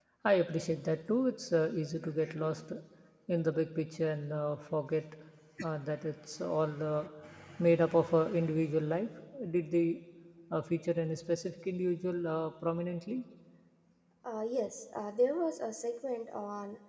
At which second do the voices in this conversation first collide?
none

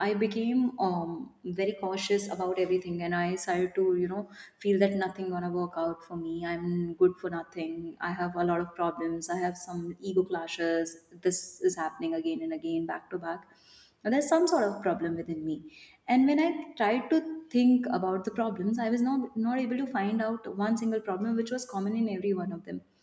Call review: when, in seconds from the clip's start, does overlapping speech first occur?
none

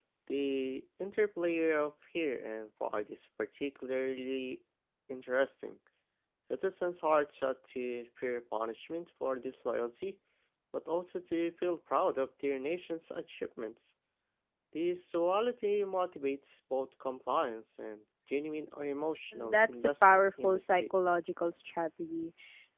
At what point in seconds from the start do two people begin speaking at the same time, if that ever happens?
19.4 s

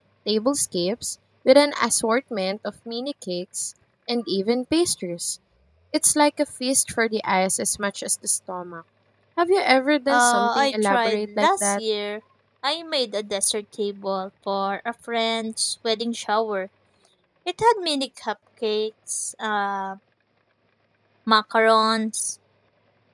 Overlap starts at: 10.1 s

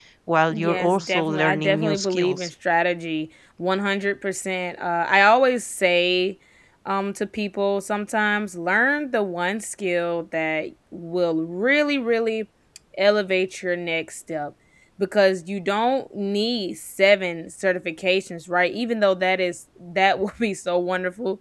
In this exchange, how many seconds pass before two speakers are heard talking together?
0.5 s

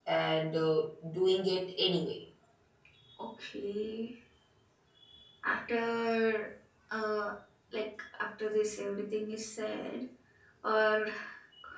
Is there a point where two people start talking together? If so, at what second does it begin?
none

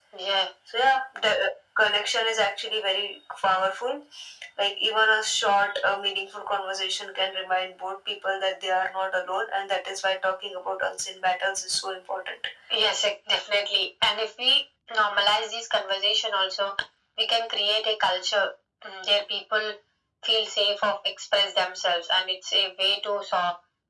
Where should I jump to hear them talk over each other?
none

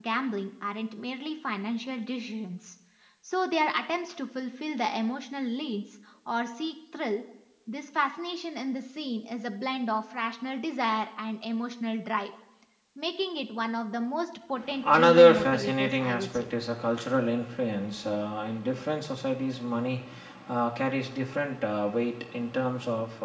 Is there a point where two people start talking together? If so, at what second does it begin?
14.8 s

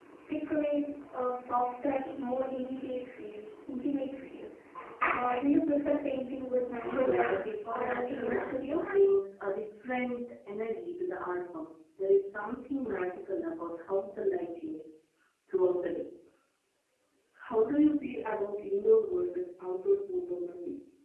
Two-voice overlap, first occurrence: 6.9 s

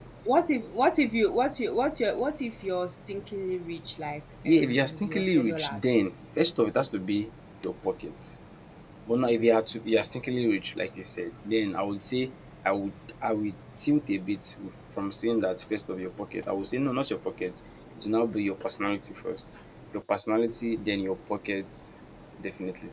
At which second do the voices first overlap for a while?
4.4 s

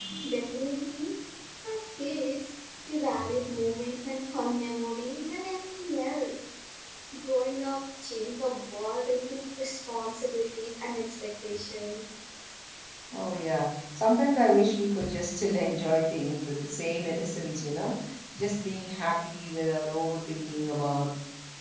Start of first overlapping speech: none

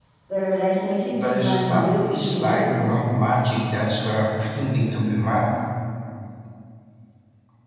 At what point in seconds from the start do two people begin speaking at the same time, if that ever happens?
1.1 s

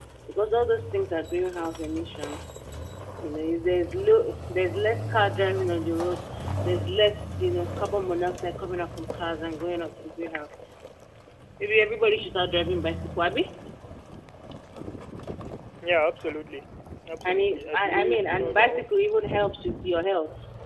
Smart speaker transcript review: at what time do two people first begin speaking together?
17.2 s

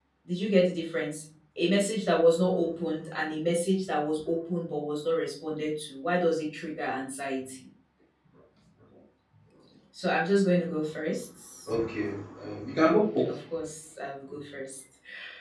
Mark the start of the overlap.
none

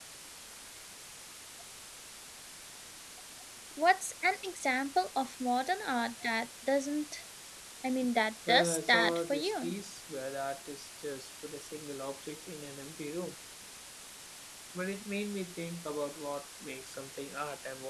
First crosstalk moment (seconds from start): 8.5 s

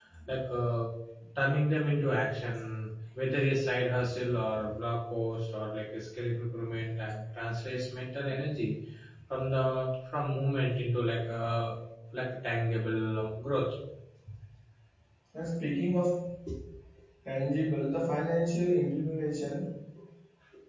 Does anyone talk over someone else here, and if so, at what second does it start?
none

